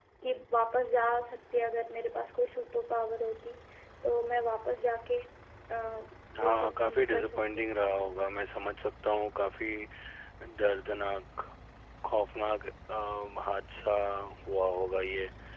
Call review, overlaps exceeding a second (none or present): present